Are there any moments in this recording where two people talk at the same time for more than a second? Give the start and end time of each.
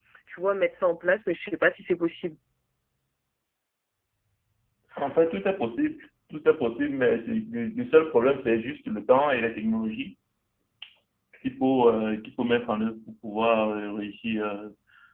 none

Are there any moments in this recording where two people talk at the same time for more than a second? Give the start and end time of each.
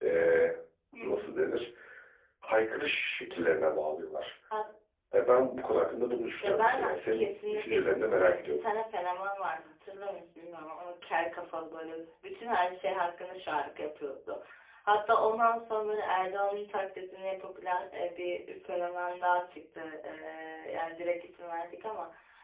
6.4-8.6

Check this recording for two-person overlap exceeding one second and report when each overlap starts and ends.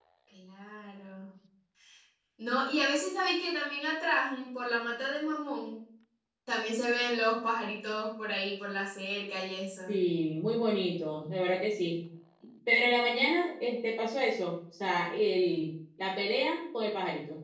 none

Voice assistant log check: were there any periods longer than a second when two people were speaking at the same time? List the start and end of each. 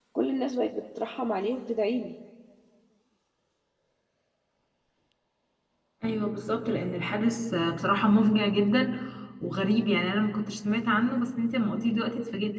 none

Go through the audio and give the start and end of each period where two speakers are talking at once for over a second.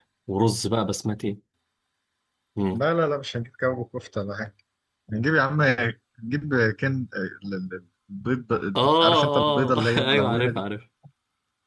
9.0-10.6

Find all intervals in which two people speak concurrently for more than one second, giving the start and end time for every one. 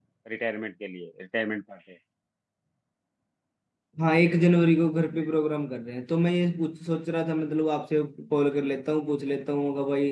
none

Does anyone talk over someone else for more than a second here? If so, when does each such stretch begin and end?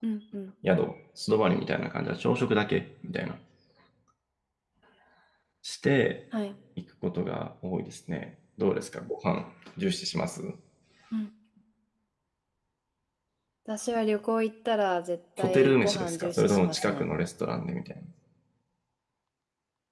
15.4-17.1

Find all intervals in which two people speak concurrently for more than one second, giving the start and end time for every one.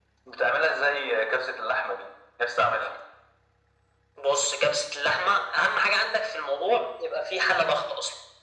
none

